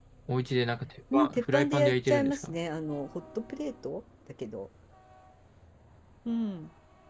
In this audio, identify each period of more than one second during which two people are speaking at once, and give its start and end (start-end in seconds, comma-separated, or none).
1.1-2.6